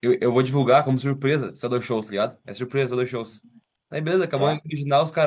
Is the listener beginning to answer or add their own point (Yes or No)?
No